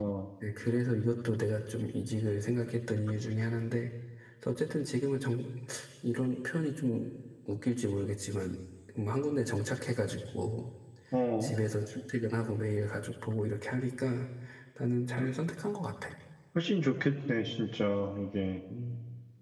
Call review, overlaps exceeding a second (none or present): none